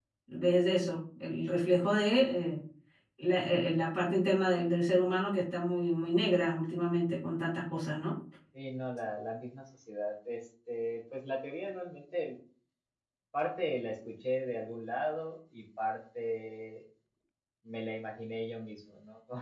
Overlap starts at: none

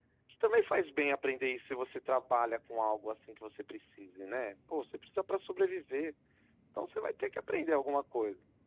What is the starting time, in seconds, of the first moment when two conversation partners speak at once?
none

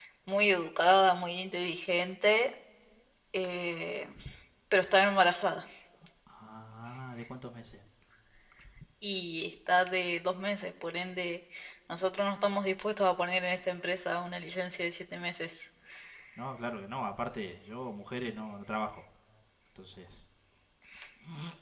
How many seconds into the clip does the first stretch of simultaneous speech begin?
none

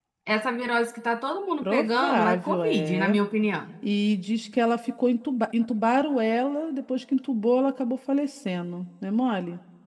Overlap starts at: 1.6 s

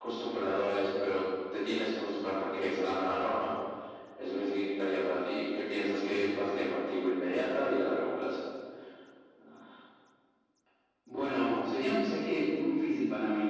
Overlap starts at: none

